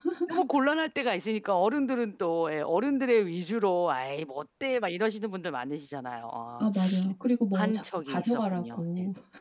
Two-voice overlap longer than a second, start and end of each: 7.5-8.8

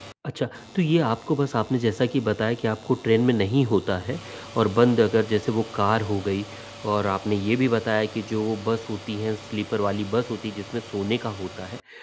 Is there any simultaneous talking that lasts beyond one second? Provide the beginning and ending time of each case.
none

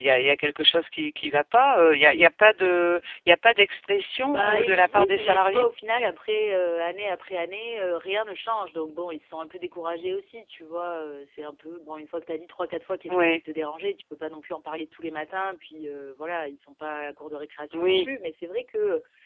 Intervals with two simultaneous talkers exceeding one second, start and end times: 4.3-5.6

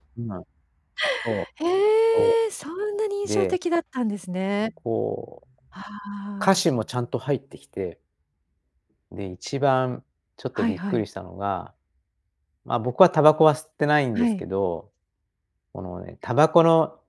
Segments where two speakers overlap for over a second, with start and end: none

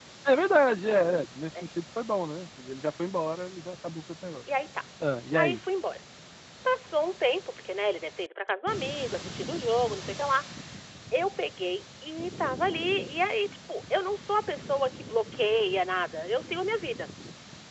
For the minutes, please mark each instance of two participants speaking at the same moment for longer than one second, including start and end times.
none

